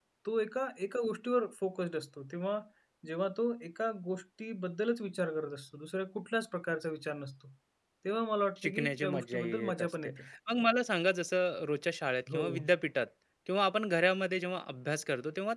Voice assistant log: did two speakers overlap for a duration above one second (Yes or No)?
Yes